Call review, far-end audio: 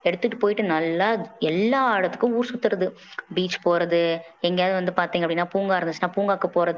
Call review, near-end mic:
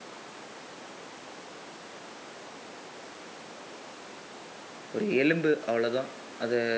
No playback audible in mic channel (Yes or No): Yes